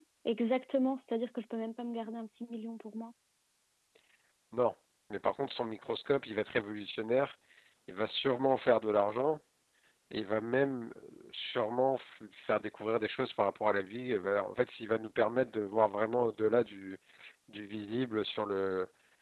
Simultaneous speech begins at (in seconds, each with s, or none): none